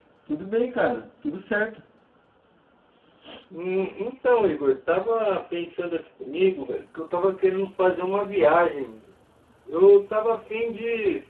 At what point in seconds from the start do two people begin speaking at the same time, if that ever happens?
none

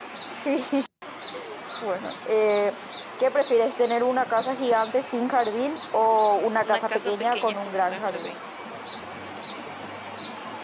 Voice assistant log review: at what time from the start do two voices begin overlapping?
7 s

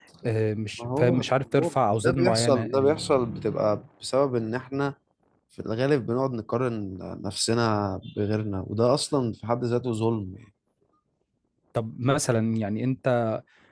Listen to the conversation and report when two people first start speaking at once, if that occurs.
1 s

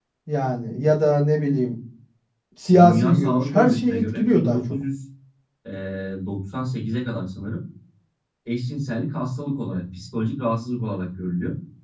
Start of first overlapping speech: 3 s

